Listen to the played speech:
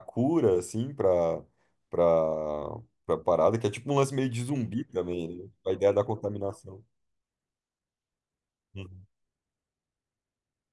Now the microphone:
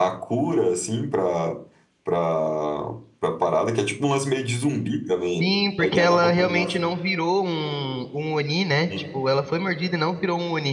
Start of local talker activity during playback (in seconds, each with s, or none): 5.3 s